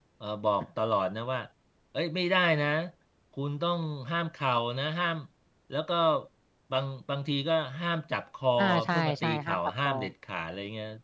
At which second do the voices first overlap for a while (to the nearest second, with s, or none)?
9 s